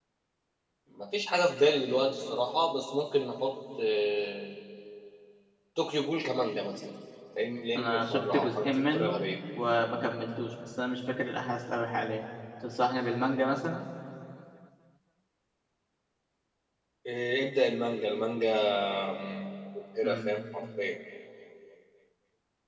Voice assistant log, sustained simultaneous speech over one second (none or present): present